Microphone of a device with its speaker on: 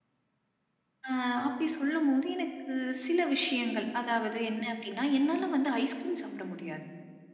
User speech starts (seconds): none

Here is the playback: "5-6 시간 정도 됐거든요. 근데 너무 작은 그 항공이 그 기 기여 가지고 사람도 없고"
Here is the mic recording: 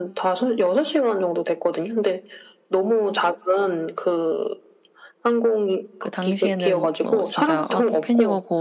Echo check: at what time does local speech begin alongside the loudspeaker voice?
6.0 s

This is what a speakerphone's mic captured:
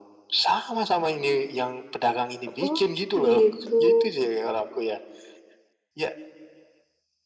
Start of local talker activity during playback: 2.4 s

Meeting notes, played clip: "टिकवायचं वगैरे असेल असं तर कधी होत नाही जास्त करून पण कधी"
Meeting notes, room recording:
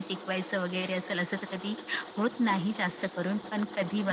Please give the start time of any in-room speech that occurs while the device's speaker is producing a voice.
none

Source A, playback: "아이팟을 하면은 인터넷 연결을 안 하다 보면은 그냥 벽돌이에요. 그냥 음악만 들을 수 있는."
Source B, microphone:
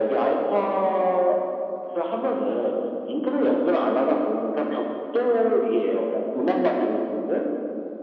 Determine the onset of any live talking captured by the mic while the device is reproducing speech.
none

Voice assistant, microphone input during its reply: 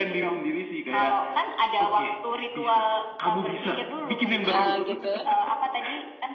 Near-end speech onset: 4.5 s

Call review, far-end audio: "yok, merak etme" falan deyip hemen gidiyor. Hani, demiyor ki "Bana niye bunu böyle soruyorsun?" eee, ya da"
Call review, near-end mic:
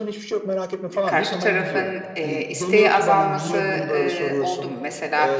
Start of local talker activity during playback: 0.9 s

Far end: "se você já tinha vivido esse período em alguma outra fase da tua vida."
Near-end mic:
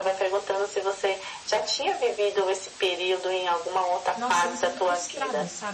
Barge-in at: 4.1 s

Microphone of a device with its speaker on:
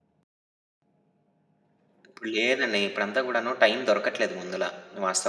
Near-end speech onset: 2.1 s

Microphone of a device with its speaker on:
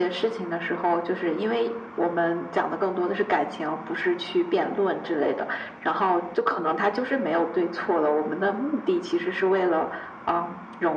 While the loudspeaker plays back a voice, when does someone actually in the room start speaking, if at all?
none

